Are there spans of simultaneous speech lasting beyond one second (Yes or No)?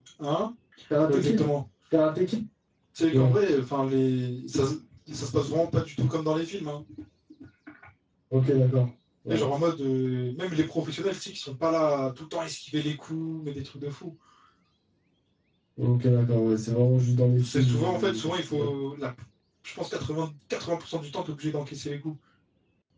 Yes